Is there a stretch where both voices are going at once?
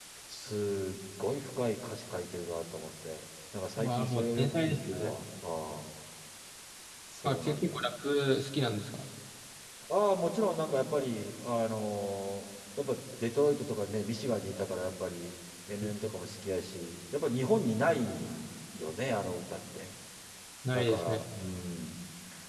Yes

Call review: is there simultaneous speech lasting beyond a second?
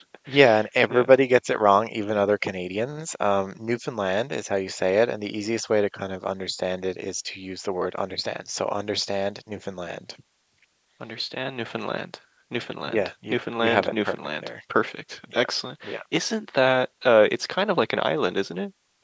Yes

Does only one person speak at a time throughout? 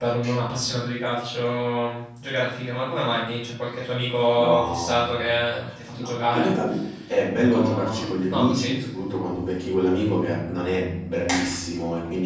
No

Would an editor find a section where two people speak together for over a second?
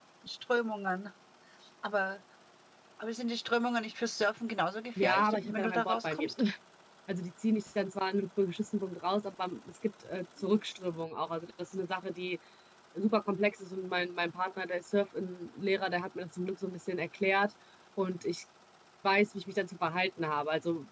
Yes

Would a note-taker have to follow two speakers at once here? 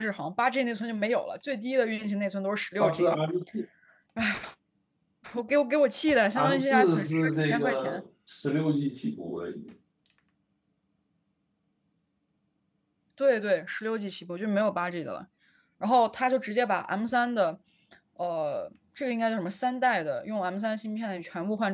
Yes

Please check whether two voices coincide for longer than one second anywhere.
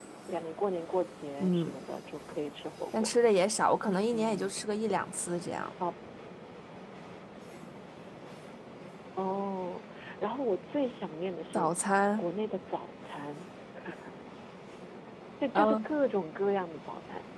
No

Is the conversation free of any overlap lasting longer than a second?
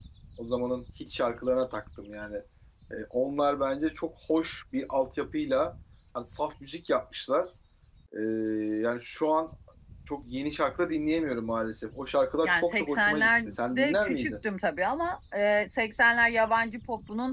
No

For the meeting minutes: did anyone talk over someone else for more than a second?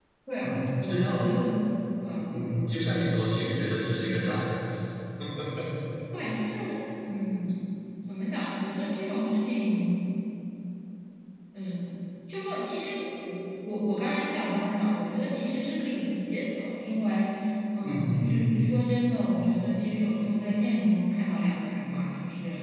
Yes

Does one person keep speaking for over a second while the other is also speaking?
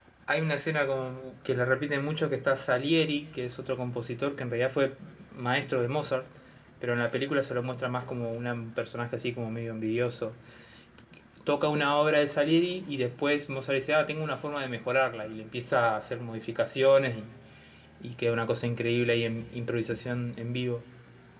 No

